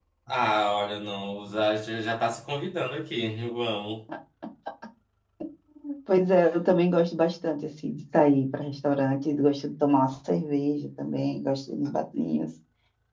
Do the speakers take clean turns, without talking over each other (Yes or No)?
Yes